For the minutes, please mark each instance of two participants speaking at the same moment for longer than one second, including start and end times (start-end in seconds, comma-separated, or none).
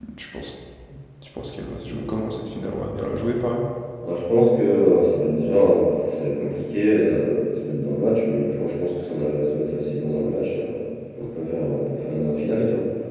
none